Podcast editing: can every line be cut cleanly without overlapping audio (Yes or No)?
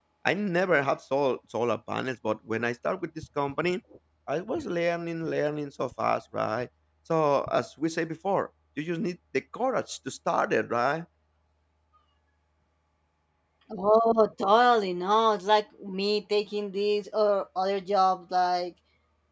Yes